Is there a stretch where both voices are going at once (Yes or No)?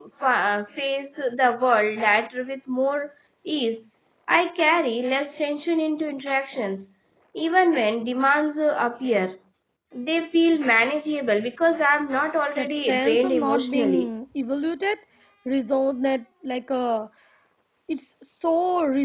Yes